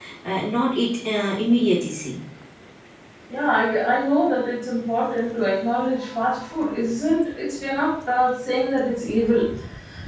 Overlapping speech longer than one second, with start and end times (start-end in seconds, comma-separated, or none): none